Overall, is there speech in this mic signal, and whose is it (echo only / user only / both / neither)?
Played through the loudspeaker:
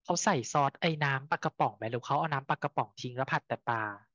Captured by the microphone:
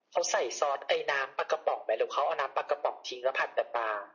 echo only